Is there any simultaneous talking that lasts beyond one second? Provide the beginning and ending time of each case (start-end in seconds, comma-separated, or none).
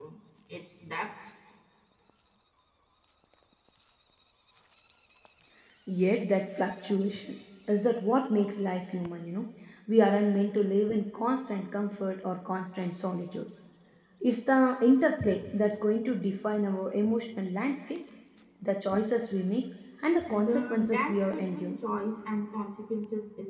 20.2-21.7